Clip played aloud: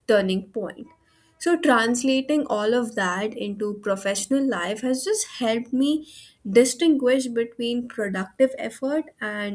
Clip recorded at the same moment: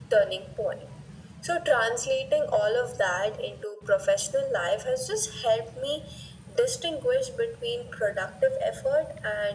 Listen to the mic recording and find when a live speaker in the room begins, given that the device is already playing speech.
none

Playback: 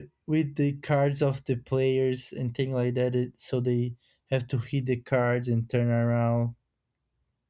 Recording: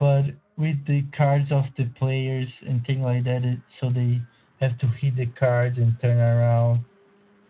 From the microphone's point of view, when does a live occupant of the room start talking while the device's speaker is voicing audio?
none

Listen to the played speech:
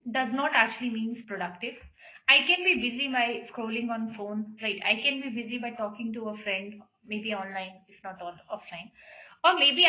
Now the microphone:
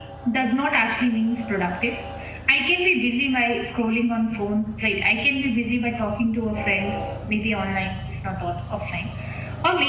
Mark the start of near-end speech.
none

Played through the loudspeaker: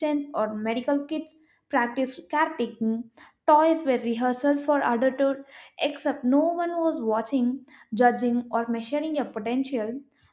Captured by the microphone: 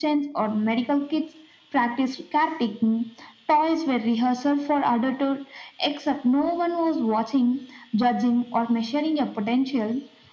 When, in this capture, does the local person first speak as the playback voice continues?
none

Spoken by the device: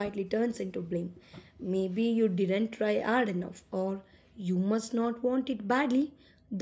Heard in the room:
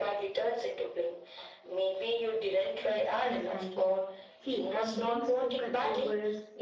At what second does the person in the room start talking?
2.8 s

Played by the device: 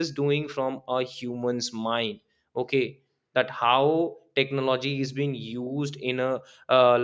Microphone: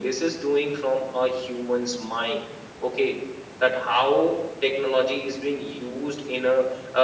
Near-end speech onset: none

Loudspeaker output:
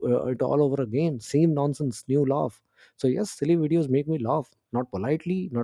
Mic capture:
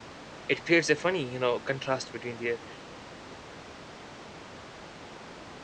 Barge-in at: 0.5 s

